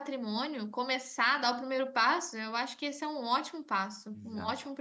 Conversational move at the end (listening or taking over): taking over